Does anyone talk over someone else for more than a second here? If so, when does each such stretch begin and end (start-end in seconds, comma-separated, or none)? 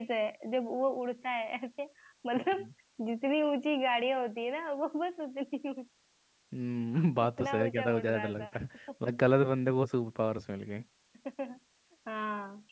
7.2-8.5